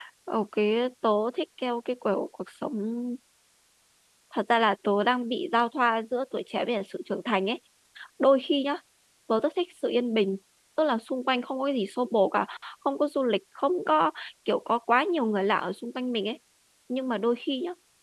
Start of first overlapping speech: none

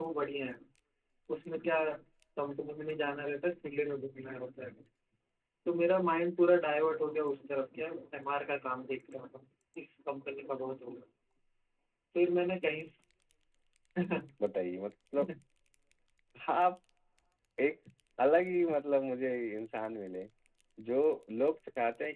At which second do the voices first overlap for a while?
none

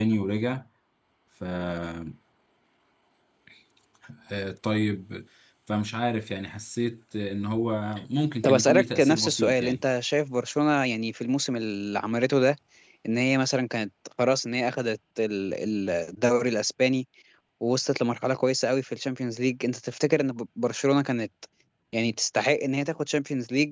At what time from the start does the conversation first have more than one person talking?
8.4 s

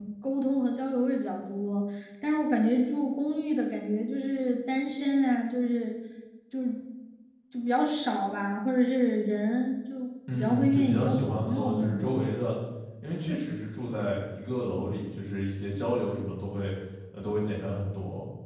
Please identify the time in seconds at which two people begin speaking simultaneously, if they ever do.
10.3 s

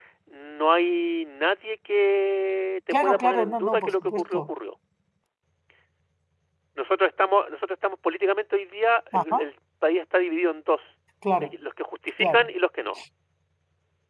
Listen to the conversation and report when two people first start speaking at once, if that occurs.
3.0 s

